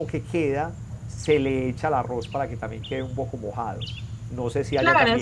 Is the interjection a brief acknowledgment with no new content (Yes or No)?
No